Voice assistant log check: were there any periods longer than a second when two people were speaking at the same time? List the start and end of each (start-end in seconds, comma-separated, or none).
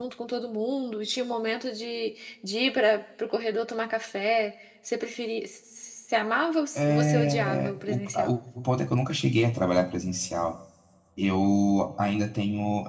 6.8-8.3